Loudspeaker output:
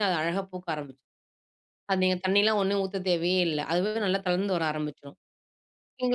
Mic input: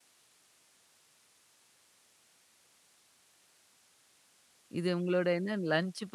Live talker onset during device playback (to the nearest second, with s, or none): 5 s